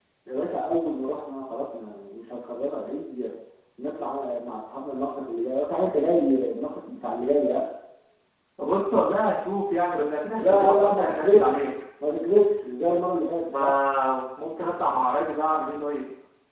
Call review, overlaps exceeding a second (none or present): present